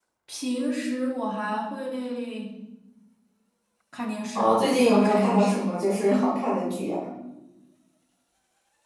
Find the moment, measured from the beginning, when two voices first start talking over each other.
4 s

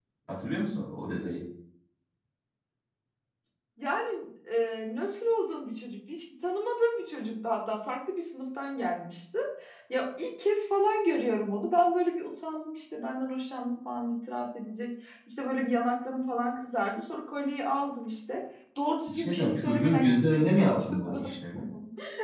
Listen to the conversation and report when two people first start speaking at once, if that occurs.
19 s

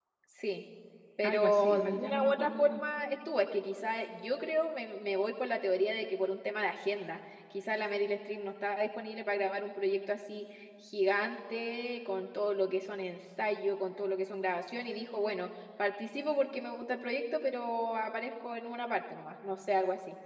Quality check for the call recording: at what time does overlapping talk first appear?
1 s

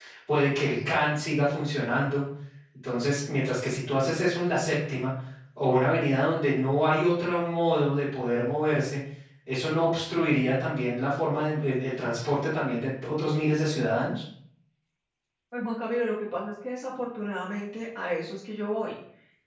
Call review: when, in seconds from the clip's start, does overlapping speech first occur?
none

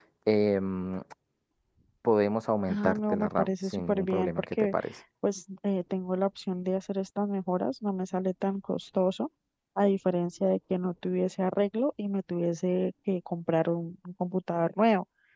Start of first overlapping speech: 3 s

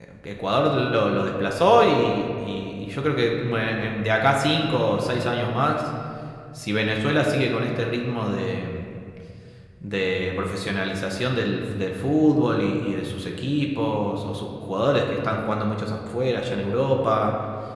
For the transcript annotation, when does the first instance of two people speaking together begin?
none

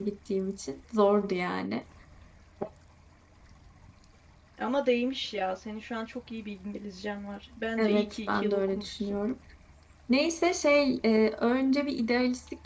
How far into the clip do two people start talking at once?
8 s

